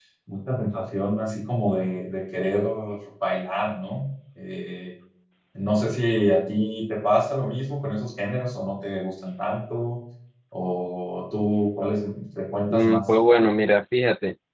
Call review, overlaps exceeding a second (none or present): none